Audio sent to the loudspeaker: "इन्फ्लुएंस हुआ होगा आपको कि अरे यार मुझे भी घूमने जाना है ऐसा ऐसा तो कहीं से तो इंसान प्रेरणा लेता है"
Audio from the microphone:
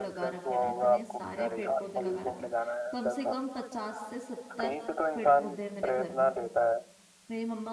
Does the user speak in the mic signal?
Yes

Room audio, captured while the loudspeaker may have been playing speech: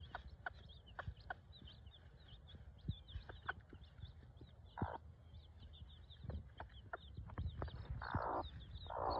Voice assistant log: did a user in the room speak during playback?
No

